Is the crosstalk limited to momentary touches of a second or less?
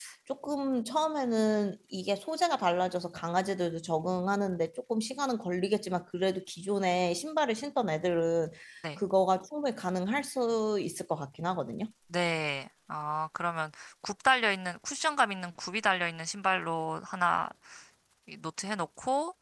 Yes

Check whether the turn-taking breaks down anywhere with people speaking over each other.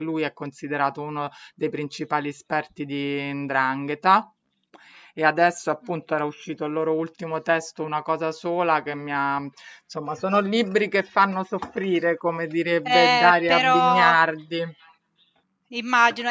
Yes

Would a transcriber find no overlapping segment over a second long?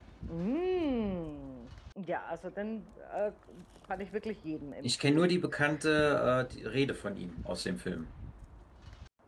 Yes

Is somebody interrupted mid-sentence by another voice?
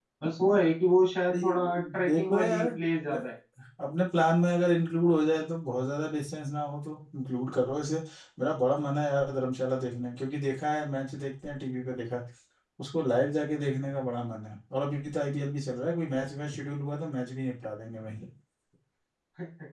Yes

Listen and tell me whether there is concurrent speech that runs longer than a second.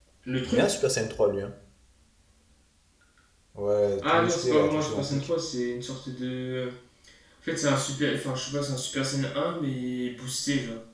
Yes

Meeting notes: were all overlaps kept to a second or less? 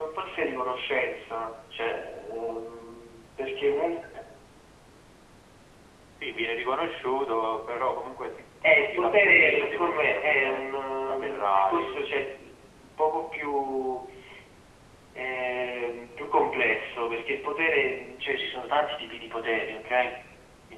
No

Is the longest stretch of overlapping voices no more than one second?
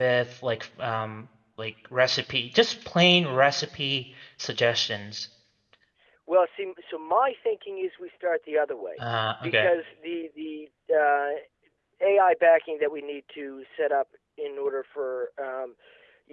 Yes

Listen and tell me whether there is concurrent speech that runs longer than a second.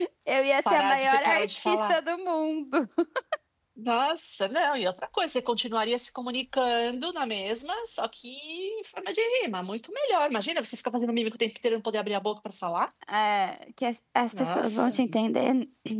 Yes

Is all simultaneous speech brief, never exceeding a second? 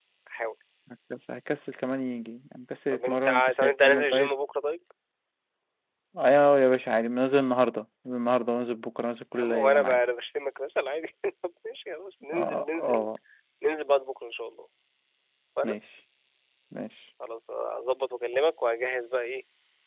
No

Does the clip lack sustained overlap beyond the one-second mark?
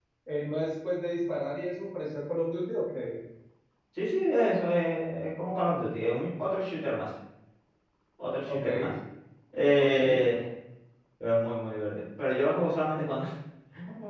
Yes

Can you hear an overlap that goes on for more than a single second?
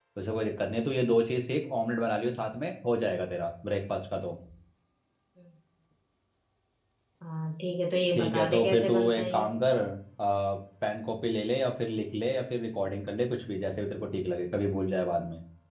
Yes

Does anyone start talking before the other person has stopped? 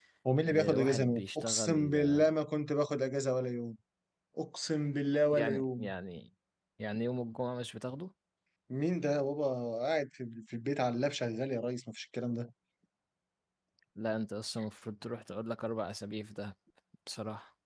Yes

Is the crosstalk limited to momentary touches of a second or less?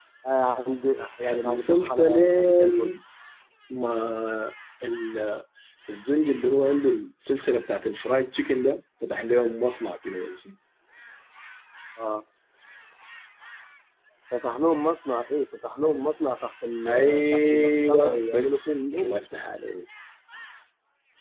No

